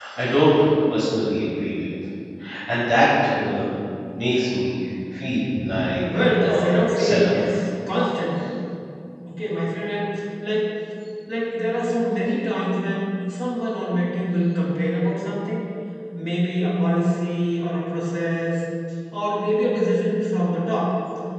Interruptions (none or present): present